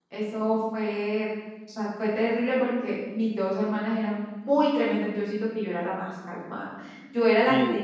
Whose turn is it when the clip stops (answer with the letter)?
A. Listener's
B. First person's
B